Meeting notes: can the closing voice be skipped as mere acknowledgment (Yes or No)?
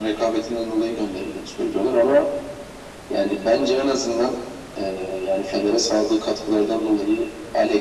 Yes